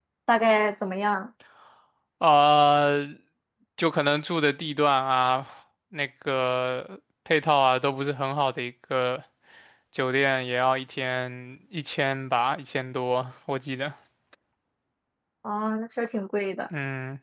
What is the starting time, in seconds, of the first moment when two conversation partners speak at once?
none

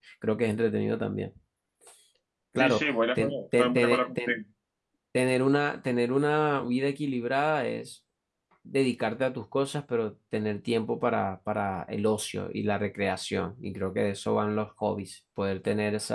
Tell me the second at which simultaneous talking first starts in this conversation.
2.6 s

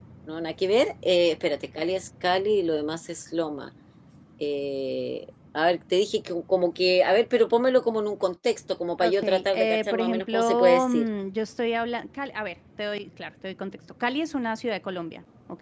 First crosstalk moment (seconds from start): 9.0 s

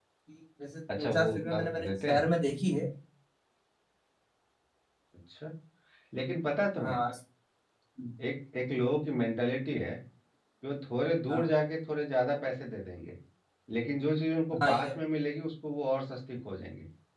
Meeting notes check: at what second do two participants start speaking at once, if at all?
1.0 s

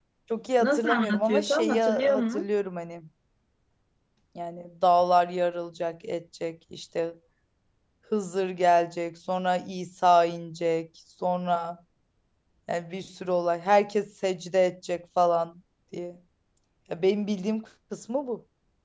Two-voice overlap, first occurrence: 0.6 s

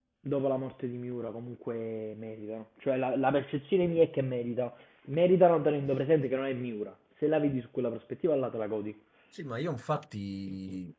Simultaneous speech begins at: none

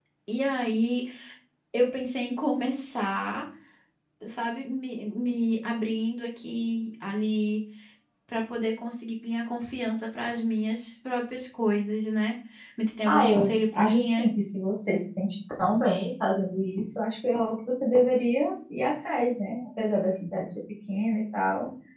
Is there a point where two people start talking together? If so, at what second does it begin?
13.1 s

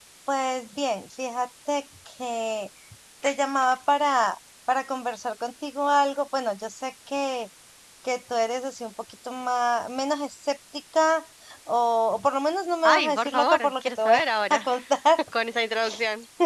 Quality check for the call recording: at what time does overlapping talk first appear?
12.8 s

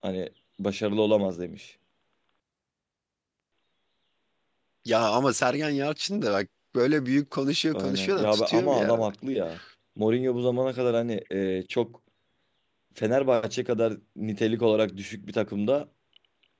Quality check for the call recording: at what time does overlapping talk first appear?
7.7 s

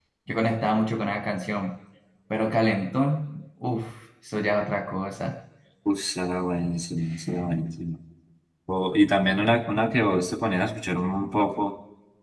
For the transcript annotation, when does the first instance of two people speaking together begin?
none

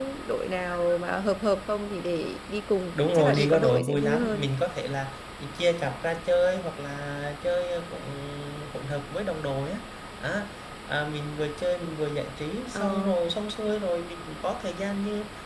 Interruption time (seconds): 3.0 s

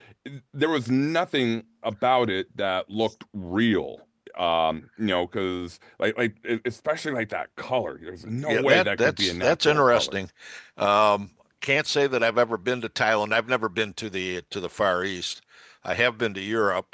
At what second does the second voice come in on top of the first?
8.4 s

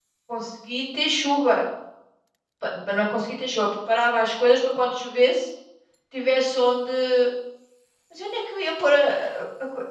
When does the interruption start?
none

